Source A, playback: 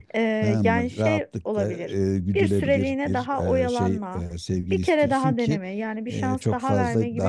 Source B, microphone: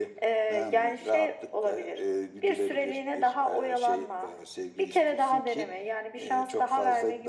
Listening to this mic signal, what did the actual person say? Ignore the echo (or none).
none